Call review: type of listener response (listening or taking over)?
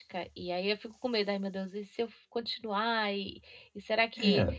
taking over